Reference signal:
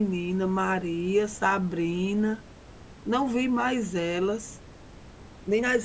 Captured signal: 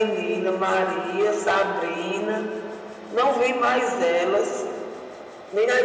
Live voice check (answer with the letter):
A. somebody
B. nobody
B